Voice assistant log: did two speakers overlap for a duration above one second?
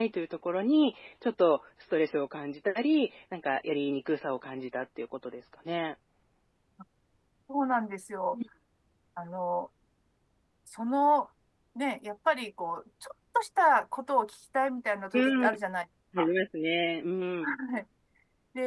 No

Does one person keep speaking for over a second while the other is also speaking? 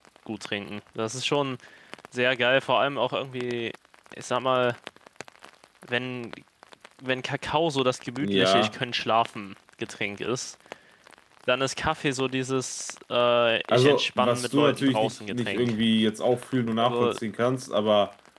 Yes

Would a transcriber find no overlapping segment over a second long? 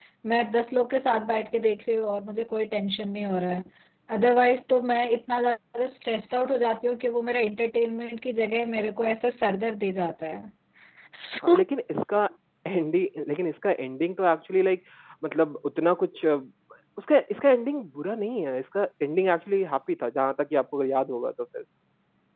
Yes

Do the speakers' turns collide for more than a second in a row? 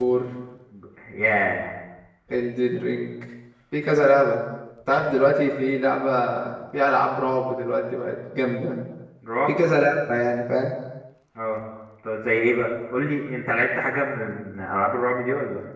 No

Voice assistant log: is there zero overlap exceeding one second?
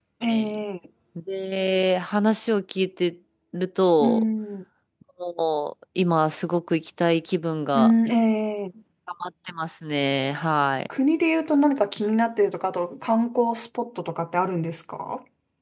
Yes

